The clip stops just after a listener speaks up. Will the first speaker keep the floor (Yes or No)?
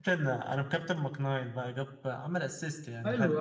No